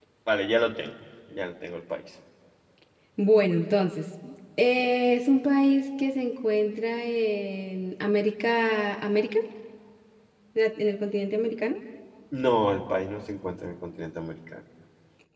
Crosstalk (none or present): none